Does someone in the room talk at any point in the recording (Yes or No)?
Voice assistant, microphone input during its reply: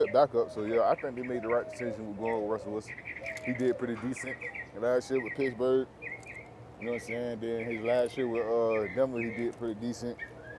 Yes